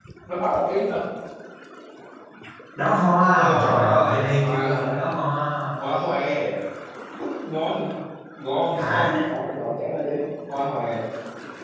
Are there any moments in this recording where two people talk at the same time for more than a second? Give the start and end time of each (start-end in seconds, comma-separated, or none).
3.2-5.0